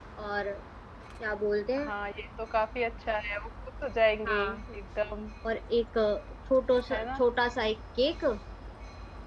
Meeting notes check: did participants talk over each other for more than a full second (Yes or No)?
No